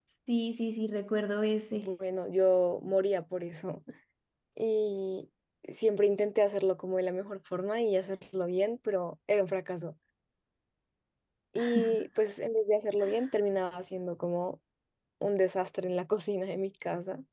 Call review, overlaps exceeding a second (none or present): none